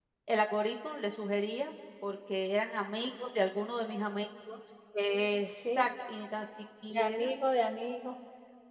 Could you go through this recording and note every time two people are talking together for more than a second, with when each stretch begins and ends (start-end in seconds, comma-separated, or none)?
none